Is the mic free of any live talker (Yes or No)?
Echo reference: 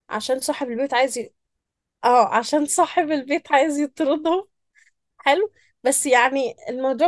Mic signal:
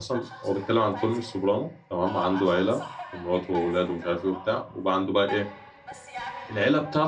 No